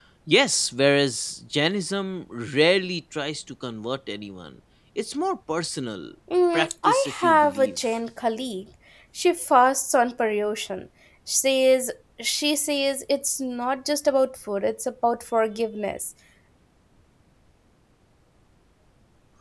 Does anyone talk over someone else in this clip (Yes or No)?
Yes